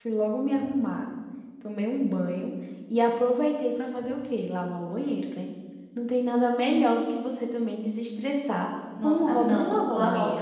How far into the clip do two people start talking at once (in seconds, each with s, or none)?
8.9 s